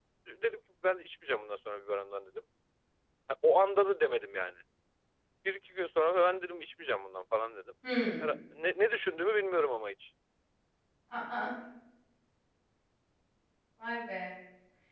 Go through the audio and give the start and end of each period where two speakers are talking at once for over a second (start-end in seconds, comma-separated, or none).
none